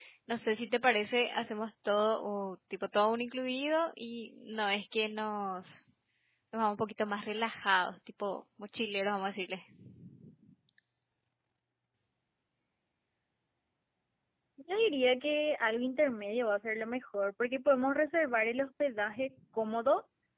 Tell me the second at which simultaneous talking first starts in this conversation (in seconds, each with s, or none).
none